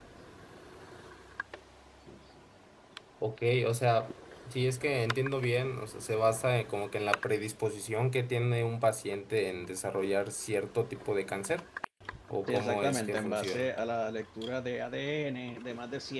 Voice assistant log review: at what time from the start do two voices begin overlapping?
12.5 s

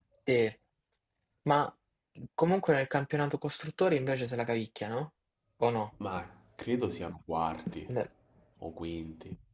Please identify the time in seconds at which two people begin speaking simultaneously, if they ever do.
none

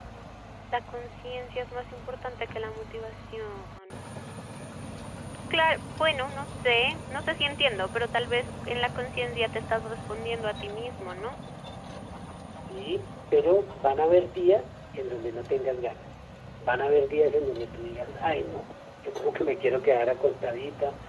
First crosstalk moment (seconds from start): none

